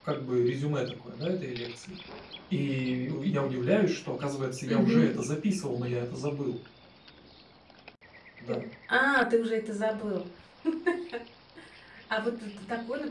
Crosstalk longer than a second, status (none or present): none